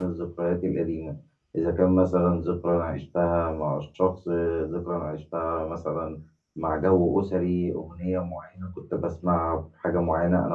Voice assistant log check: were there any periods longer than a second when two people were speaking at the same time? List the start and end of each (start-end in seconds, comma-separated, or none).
none